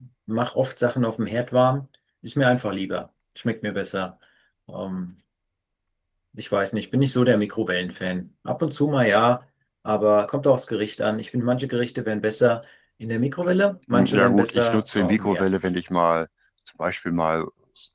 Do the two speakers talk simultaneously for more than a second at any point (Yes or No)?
Yes